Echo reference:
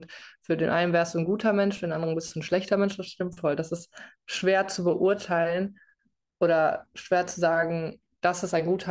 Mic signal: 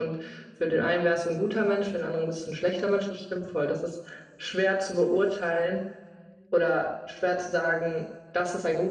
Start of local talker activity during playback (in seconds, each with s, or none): none